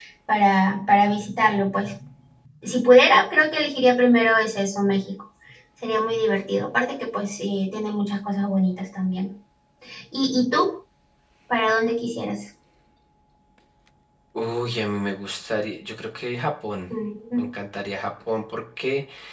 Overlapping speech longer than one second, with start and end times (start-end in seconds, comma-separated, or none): none